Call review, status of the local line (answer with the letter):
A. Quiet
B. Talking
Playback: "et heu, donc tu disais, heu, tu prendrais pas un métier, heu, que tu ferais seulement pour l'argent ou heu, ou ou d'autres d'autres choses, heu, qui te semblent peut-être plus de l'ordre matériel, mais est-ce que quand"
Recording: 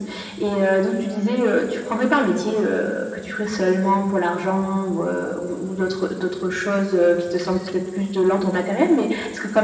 A